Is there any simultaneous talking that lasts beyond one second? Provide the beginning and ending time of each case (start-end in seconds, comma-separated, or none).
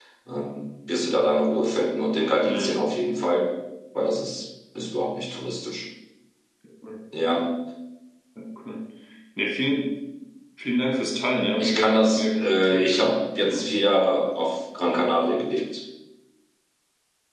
11.6-13.7